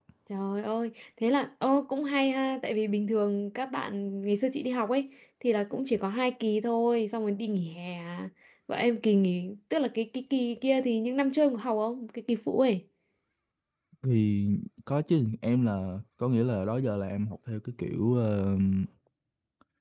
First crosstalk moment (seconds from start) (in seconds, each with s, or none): none